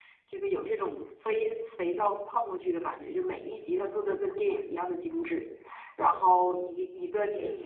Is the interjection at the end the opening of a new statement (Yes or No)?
No